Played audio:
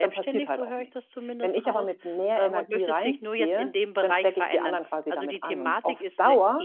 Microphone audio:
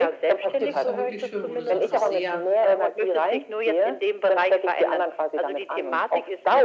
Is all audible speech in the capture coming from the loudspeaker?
No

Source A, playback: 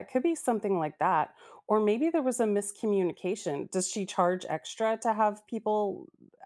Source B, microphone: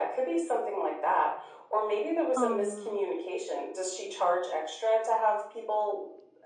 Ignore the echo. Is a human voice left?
Yes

